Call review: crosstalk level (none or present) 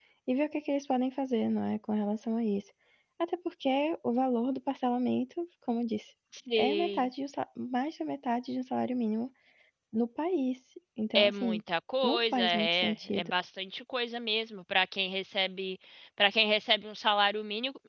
present